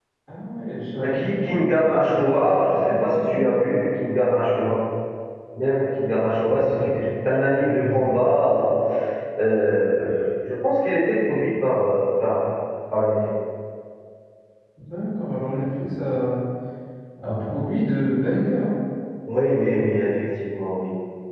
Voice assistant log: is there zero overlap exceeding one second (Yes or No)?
No